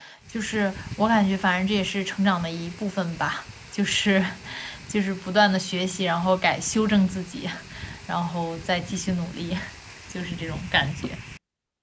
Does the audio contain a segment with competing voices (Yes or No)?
No